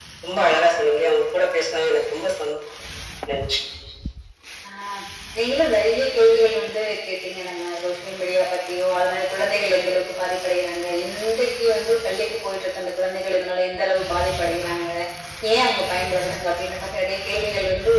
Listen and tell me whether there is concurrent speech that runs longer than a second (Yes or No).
No